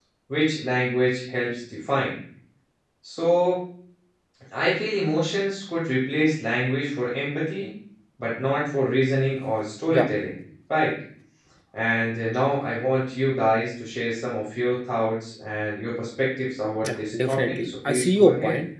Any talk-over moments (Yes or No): Yes